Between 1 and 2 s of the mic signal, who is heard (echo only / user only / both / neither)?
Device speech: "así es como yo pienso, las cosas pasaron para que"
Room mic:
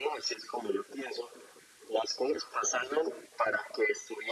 echo only